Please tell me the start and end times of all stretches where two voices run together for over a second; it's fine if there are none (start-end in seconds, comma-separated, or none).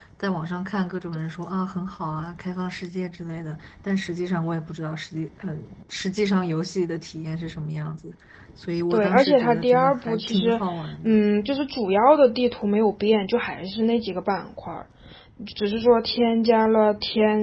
8.9-10.6